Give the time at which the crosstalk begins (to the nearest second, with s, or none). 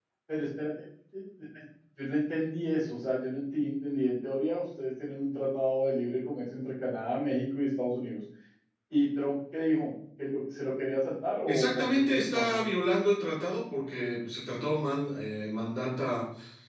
11 s